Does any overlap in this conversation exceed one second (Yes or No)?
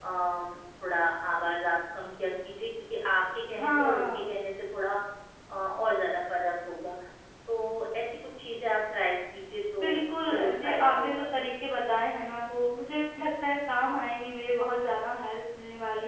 Yes